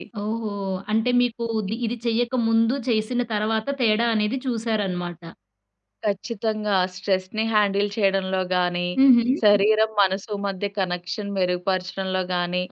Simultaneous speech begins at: none

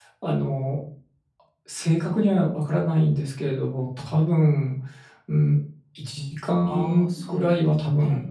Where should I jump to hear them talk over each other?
6.7 s

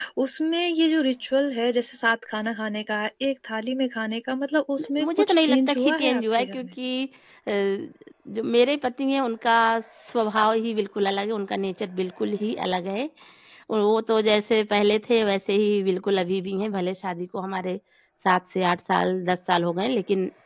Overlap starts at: 4.8 s

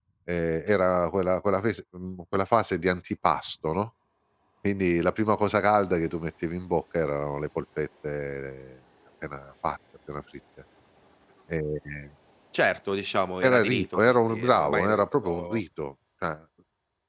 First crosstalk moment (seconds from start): 13.4 s

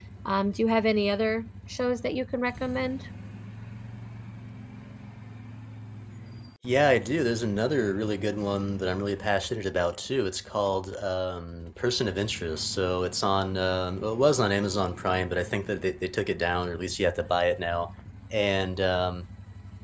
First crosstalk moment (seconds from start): none

